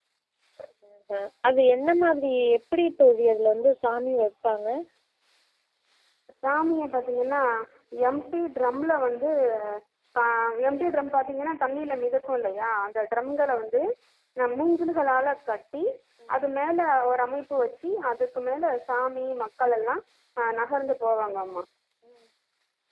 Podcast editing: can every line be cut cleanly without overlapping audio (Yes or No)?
Yes